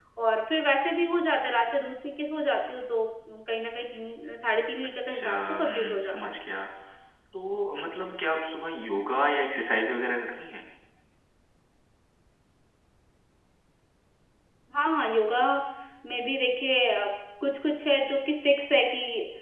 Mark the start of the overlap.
5.1 s

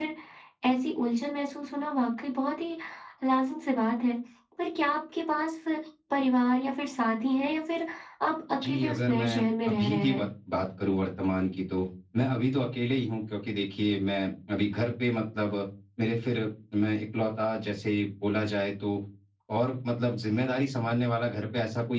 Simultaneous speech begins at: 8.6 s

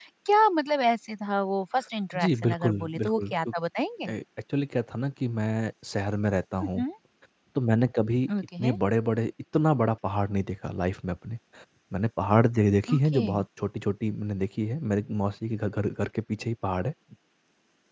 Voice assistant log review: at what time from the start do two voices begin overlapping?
2.1 s

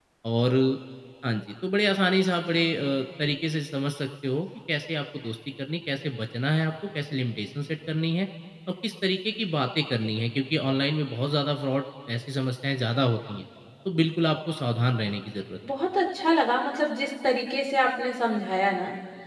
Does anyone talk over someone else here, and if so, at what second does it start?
none

